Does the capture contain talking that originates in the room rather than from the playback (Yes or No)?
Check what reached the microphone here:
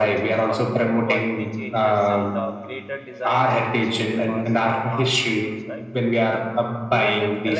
Yes